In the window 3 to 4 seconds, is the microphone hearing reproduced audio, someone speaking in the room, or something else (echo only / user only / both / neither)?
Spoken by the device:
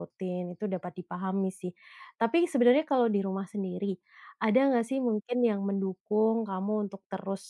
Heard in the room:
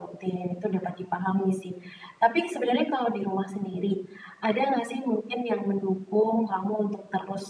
echo only